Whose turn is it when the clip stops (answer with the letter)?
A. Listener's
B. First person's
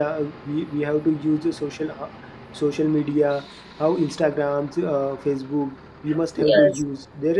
B